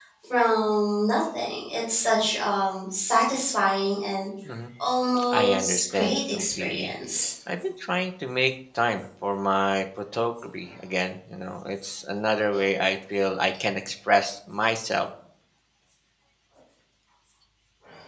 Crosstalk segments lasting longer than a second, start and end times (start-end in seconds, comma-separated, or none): 5.3-6.9